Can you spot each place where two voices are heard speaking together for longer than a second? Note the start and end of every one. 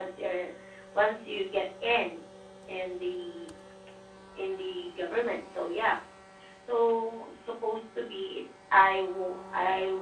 none

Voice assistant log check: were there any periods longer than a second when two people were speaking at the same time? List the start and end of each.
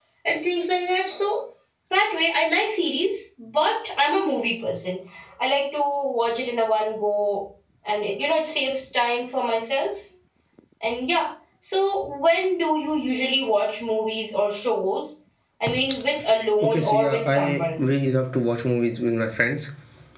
16.6-17.8

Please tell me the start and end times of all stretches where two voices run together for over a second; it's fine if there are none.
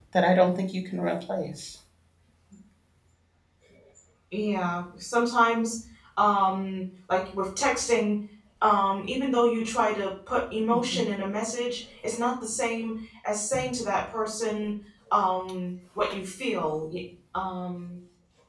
none

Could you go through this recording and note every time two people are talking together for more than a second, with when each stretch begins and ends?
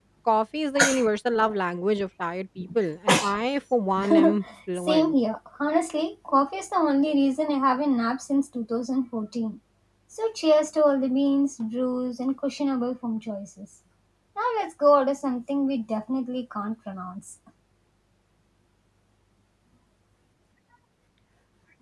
none

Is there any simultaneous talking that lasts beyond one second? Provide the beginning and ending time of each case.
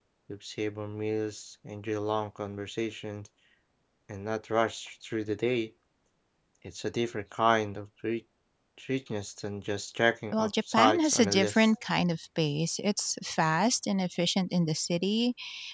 10.3-11.7

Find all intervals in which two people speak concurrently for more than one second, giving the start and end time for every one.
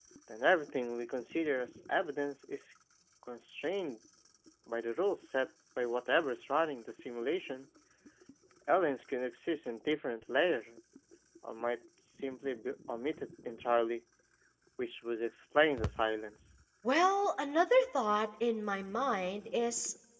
none

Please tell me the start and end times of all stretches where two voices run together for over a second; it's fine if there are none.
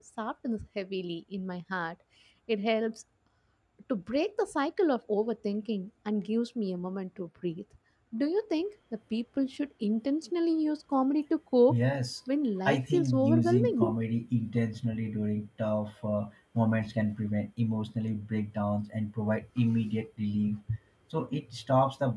12.6-14.0

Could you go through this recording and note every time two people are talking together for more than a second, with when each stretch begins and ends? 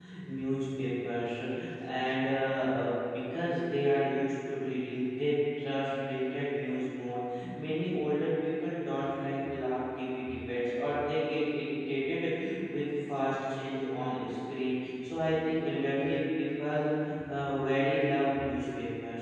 none

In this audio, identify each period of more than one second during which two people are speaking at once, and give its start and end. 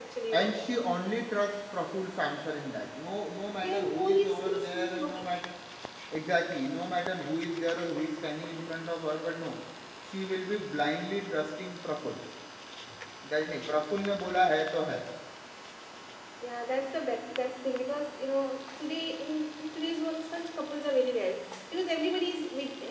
3.6-5.1

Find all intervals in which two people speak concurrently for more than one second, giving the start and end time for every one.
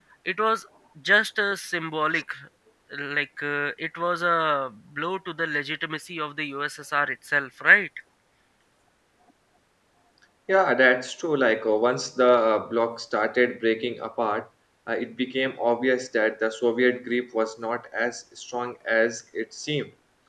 none

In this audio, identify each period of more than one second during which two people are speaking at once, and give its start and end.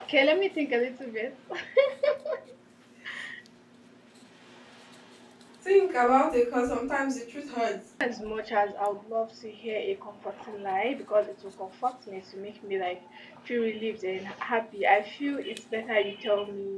none

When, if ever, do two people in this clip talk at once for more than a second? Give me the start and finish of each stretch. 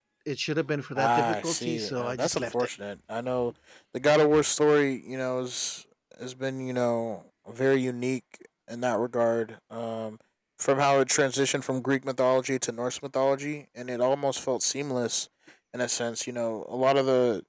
1.0-2.7

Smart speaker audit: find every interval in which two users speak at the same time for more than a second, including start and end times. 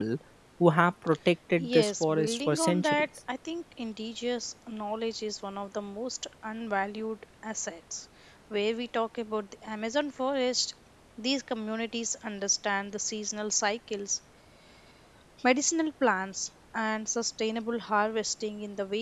1.6-3.1

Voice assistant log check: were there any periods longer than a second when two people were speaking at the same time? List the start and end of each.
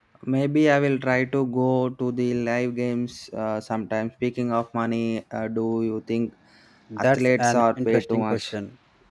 7.0-8.5

